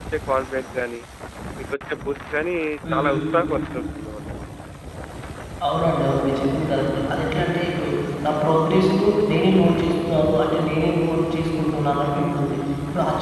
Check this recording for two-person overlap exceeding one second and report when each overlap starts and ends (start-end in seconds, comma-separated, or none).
none